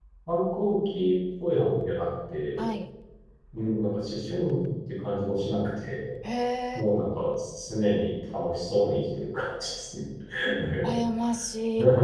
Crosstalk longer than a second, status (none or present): none